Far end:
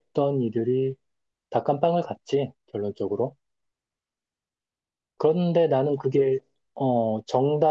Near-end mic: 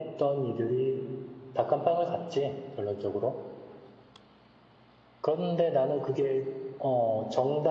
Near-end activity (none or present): none